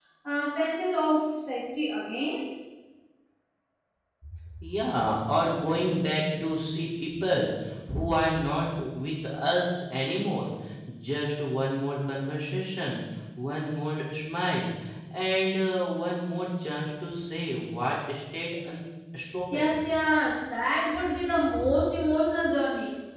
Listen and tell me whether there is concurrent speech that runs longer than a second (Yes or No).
No